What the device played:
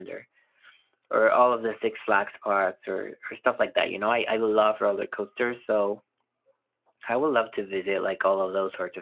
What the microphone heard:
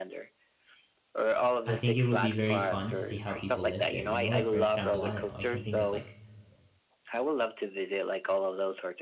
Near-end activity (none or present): present